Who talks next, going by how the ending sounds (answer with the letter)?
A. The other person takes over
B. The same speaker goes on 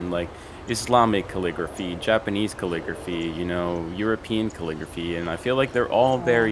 B